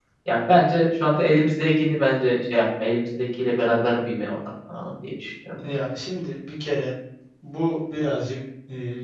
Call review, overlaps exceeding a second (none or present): none